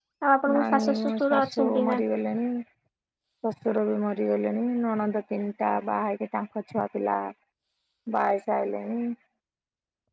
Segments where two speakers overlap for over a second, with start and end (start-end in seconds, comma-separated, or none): 0.5-2.0